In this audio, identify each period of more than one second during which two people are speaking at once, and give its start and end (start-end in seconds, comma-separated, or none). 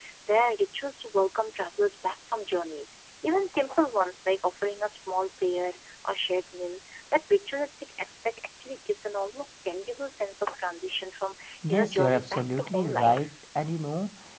11.7-13.3